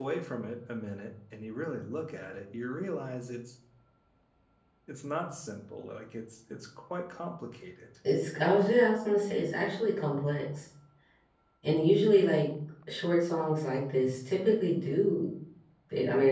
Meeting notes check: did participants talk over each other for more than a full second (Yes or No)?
No